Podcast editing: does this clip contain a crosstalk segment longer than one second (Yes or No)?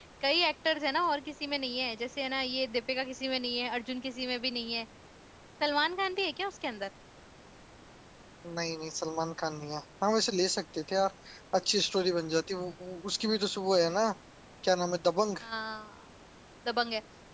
No